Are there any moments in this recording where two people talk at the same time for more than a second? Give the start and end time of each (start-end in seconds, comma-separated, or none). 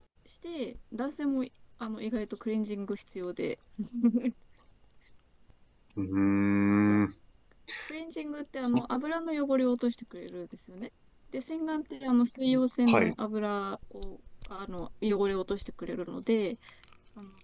none